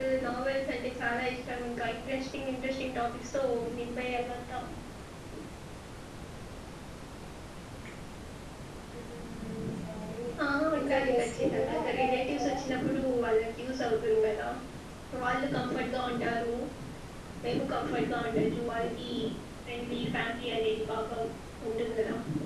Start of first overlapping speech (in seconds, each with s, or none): 10.8 s